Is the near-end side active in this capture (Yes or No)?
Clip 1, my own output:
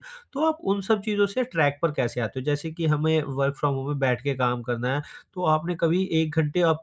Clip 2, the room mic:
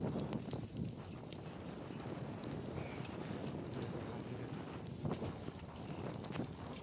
No